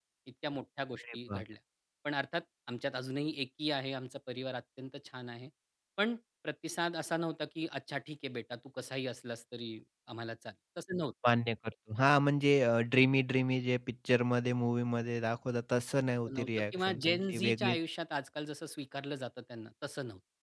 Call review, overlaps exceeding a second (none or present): present